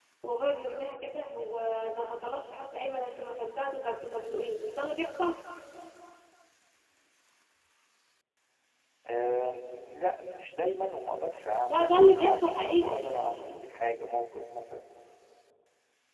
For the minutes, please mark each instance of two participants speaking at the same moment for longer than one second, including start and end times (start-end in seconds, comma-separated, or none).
11.6-13.0